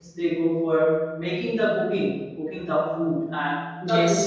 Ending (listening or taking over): listening